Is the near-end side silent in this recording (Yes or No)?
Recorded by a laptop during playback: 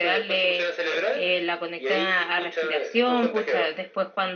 No